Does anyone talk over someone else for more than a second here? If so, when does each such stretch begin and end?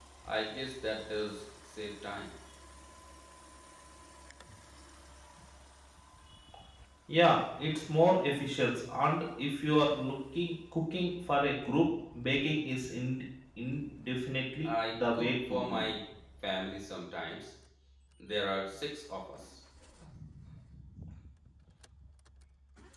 14.7-15.9

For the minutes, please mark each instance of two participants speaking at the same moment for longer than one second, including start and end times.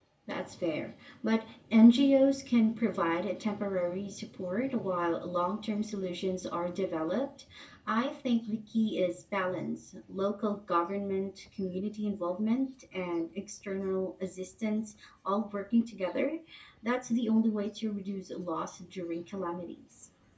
none

